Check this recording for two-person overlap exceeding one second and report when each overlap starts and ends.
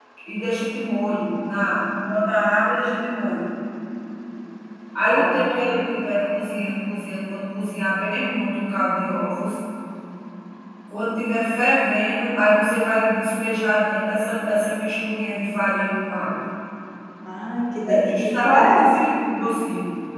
17.9-19.1

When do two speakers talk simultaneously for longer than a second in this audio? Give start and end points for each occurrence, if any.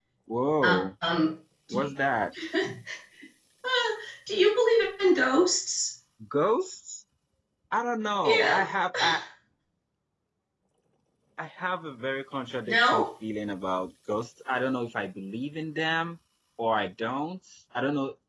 none

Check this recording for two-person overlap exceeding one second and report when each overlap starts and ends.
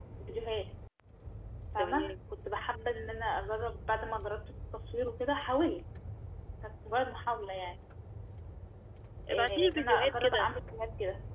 9.3-10.5

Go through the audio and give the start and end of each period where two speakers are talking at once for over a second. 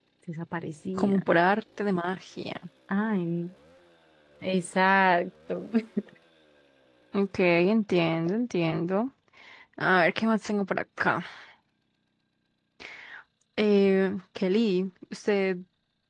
none

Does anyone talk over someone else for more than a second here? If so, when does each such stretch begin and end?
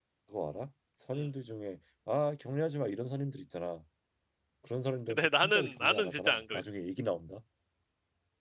5.1-6.7

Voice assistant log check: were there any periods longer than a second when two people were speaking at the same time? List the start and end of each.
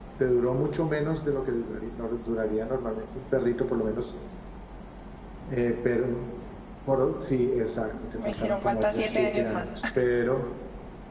8.1-9.6

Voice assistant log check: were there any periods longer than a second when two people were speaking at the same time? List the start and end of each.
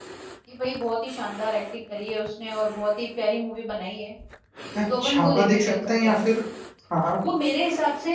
5.0-6.2

